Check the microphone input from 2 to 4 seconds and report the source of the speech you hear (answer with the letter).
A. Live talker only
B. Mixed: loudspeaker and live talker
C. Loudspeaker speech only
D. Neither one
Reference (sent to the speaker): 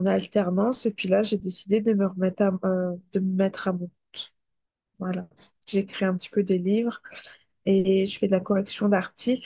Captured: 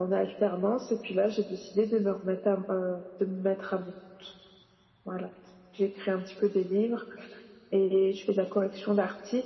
C